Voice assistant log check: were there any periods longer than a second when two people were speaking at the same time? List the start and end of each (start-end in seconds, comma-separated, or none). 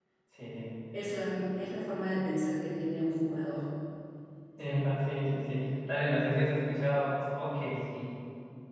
none